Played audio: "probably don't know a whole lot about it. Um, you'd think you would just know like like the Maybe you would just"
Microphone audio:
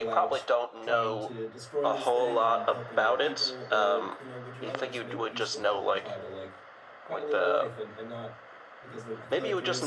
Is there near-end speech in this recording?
Yes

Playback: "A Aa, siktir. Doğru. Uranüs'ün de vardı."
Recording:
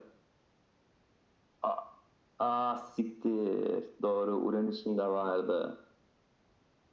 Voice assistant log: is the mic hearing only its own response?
Yes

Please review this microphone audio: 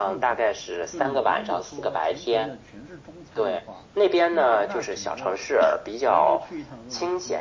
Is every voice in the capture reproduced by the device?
No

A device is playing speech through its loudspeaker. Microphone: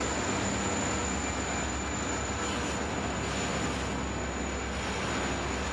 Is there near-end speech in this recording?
No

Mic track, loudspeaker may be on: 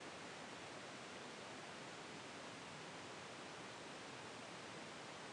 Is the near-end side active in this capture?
No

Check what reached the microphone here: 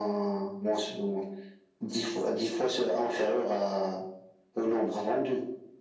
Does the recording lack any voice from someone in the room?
Yes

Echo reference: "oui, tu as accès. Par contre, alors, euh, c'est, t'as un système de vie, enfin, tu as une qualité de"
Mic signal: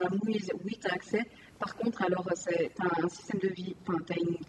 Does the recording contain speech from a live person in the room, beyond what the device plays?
No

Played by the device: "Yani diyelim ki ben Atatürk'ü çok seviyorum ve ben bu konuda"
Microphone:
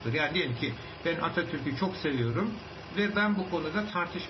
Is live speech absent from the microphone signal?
Yes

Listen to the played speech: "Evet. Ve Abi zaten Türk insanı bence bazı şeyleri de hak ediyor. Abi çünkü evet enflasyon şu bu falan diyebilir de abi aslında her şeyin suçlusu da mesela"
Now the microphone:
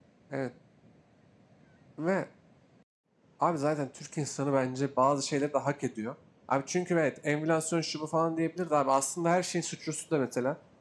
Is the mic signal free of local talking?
Yes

